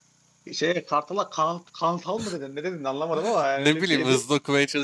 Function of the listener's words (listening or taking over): taking over